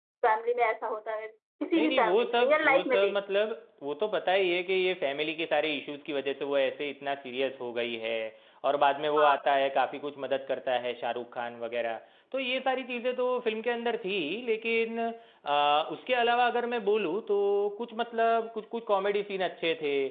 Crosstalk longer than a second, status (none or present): present